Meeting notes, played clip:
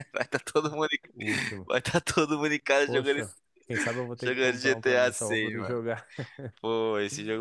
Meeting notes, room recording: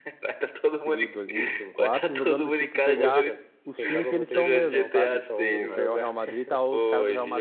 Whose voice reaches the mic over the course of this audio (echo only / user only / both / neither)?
both